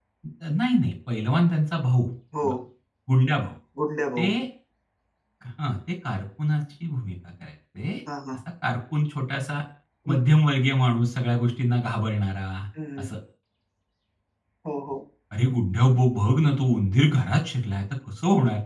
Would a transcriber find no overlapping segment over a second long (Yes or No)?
Yes